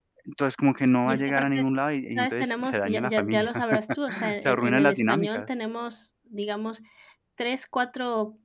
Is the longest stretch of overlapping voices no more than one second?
No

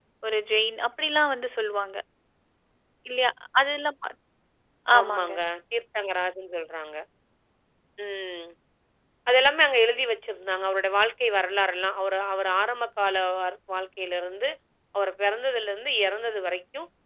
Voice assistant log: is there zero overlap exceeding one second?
Yes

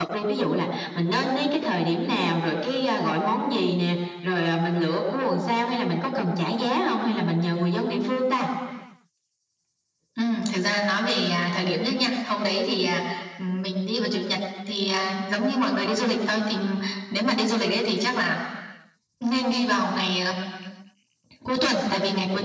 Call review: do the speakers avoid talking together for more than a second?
Yes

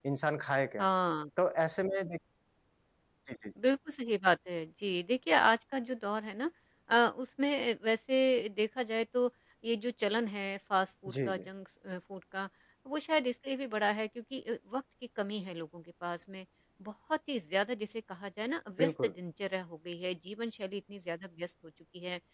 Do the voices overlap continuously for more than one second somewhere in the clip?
No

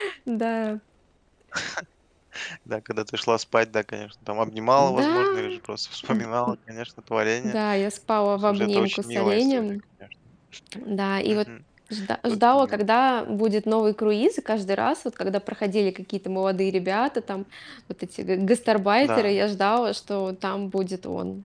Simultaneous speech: Yes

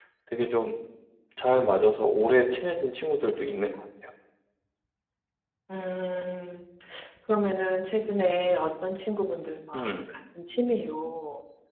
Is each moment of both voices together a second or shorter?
Yes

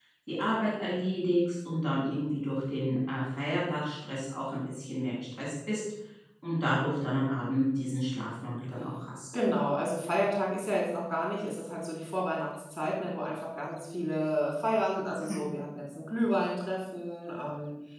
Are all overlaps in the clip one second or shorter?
Yes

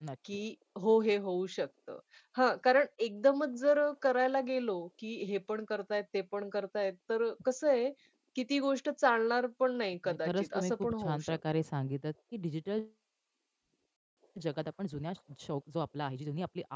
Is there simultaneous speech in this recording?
Yes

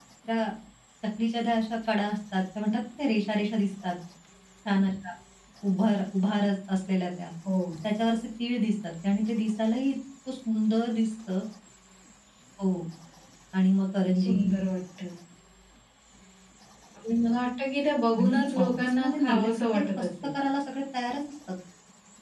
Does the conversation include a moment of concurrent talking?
Yes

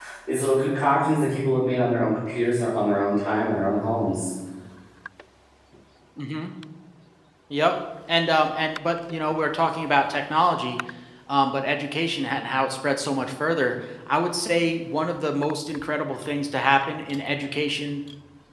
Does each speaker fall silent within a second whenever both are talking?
Yes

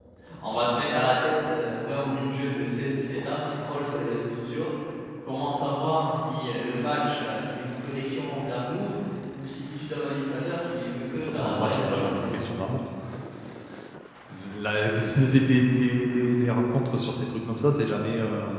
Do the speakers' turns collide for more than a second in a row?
Yes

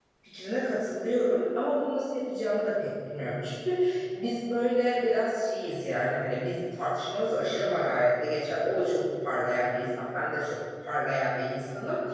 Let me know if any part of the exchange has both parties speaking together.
No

